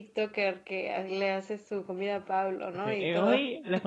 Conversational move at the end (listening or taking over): taking over